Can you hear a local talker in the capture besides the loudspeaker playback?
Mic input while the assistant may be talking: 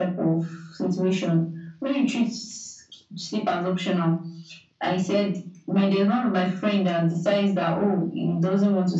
No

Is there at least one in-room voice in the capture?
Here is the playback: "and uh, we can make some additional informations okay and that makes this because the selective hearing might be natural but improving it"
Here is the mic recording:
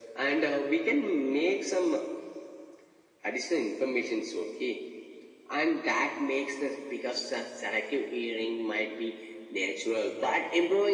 No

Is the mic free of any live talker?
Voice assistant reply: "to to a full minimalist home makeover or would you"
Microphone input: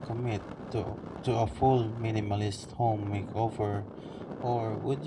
Yes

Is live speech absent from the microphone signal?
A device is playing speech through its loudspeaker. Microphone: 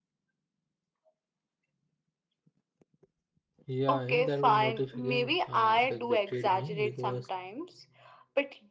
No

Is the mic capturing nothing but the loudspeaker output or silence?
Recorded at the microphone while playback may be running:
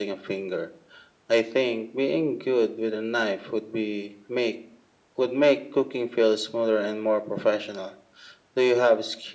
Yes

